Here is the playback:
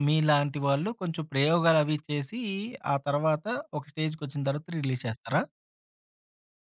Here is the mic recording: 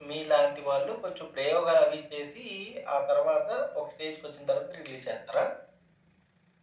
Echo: present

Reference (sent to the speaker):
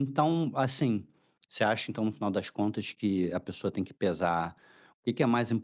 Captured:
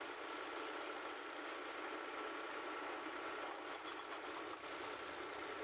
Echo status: none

